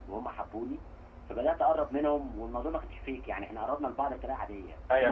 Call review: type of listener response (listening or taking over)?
taking over